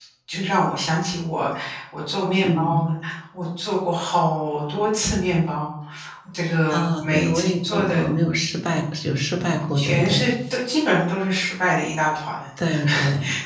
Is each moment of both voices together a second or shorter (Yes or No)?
No